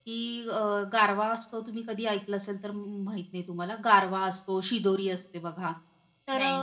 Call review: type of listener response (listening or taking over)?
listening